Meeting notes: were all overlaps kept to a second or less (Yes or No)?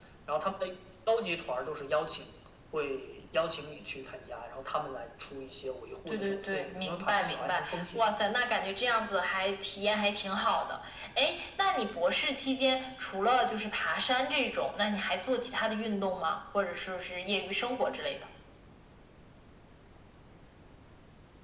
No